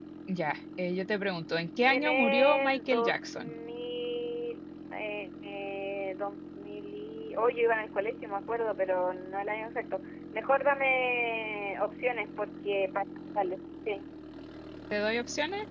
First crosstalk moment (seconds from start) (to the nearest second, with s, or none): 2 s